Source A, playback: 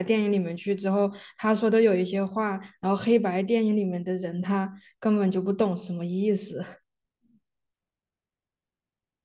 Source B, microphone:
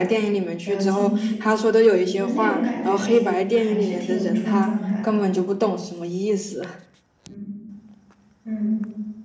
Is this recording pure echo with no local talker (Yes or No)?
No